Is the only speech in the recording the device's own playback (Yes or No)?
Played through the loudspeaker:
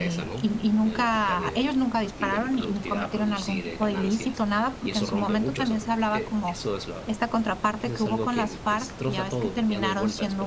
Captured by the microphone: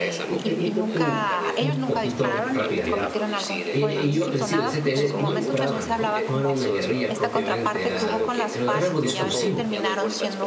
No